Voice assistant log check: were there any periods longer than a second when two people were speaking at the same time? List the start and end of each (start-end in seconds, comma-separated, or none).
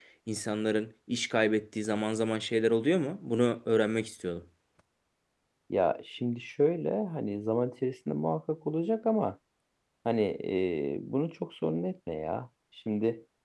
none